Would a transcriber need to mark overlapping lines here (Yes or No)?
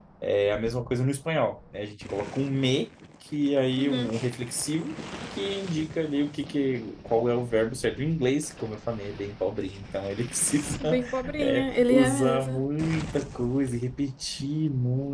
Yes